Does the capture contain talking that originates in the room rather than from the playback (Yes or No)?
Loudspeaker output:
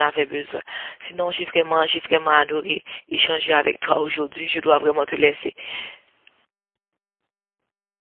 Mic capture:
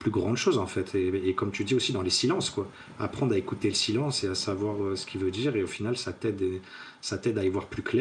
Yes